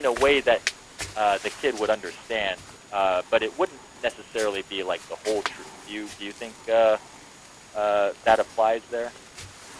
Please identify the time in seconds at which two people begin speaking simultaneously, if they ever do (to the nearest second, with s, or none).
none